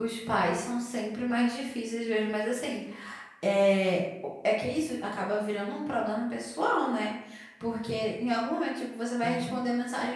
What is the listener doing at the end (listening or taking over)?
listening